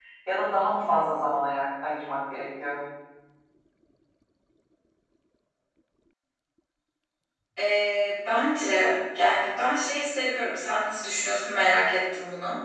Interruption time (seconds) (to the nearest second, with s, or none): none